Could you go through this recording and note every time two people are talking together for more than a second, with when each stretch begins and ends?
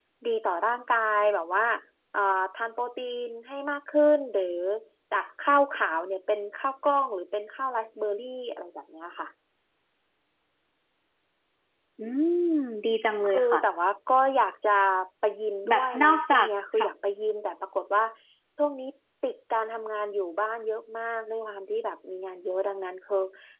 15.7-16.9

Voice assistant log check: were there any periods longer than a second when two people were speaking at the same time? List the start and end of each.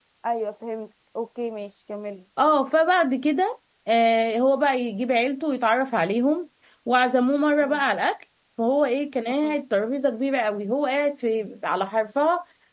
none

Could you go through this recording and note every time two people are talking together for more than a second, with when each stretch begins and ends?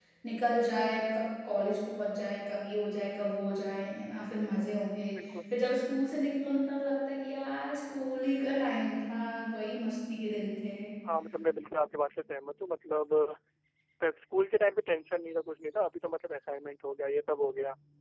none

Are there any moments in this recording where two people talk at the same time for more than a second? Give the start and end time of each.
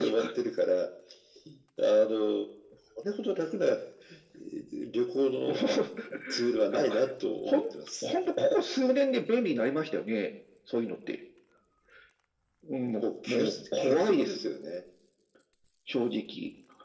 13.0-14.4

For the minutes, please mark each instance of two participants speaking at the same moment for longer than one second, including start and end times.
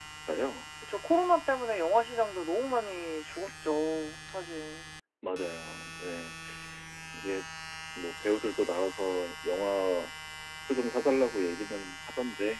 none

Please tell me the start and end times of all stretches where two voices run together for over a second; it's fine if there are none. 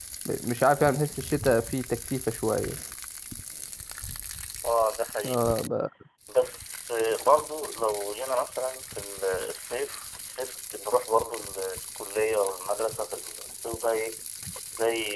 none

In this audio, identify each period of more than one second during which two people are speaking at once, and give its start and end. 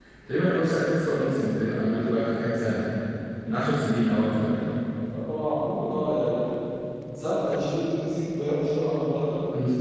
none

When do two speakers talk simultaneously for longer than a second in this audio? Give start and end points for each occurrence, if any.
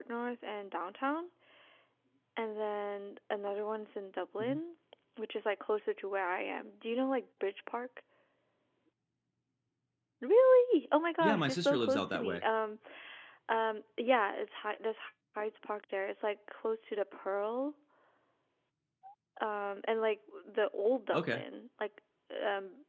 11.2-12.4

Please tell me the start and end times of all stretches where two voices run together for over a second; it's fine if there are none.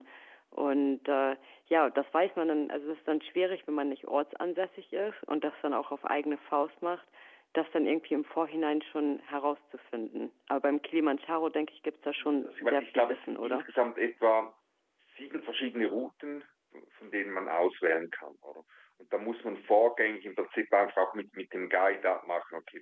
12.4-13.7

